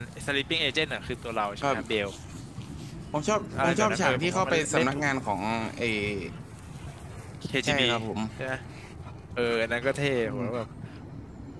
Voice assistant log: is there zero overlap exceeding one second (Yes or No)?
No